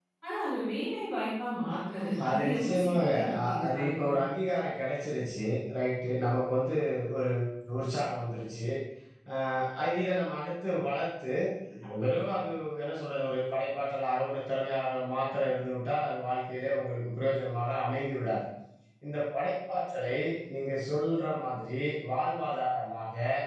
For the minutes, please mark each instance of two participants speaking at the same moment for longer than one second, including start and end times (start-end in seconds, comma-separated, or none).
1.7-4.1